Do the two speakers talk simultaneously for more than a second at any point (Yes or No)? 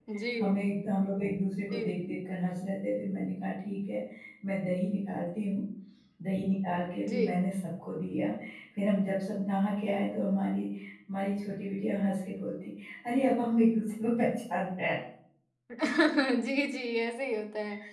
No